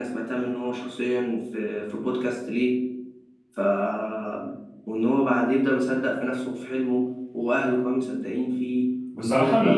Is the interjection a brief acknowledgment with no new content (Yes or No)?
No